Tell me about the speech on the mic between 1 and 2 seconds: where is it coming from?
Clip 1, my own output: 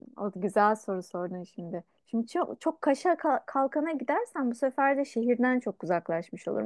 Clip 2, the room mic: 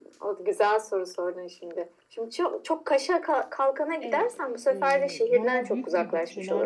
echo only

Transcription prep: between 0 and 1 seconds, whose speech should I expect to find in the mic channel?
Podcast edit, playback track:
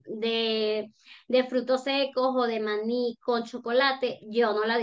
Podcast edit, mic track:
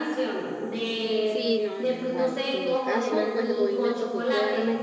echo only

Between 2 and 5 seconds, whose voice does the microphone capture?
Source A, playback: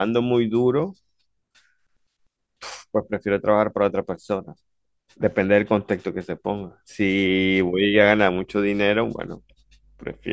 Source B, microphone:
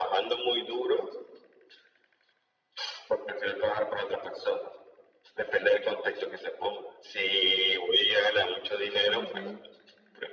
echo only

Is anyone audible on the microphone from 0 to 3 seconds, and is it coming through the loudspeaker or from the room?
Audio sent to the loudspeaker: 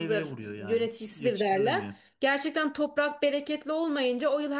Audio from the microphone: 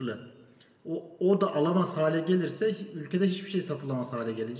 user only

